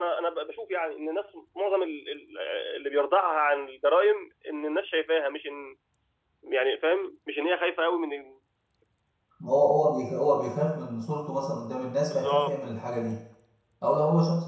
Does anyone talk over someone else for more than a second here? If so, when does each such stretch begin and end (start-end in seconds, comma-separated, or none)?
none